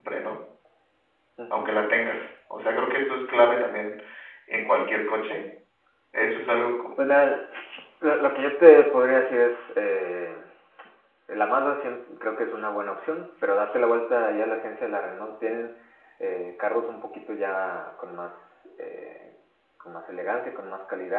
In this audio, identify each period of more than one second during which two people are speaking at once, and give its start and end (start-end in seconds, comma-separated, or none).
none